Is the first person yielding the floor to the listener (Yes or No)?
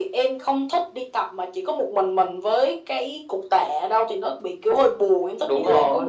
Yes